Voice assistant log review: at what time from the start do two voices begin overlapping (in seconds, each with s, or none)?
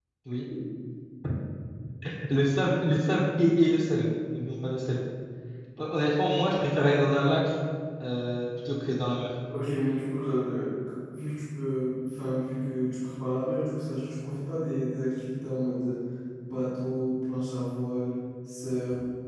none